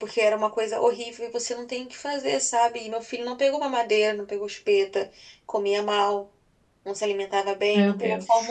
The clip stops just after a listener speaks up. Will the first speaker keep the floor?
Yes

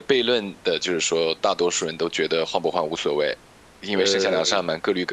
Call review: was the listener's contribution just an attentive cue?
Yes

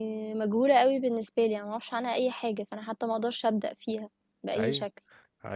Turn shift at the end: Yes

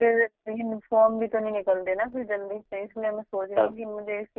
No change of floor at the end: Yes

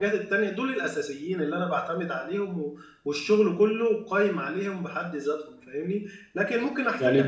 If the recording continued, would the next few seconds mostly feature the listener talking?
No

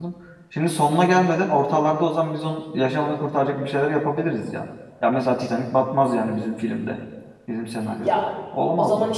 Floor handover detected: Yes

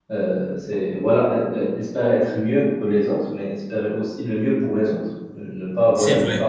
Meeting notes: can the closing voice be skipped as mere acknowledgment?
Yes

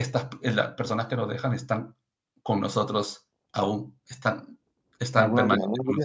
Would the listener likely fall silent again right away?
No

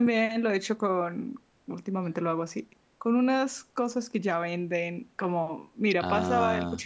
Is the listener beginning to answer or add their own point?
No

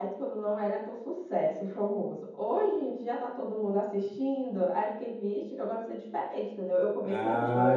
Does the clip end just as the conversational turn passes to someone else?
Yes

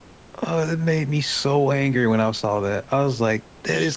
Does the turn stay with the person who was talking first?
Yes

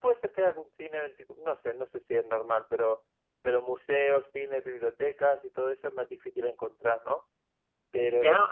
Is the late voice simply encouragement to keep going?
No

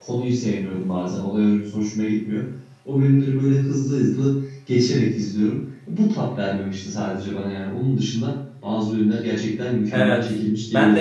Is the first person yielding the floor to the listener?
Yes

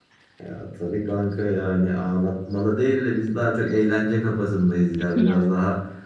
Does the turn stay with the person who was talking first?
Yes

